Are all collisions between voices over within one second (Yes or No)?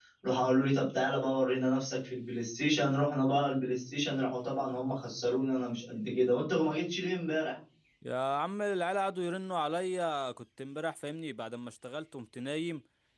Yes